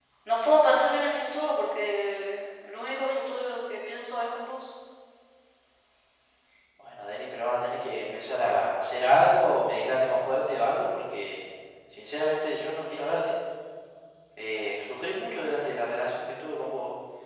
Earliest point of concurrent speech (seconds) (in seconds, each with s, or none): none